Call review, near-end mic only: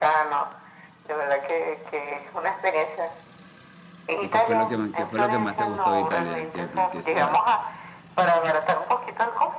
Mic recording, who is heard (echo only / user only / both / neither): both